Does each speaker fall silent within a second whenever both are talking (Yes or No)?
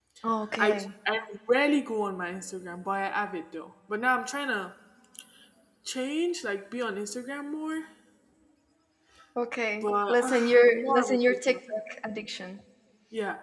No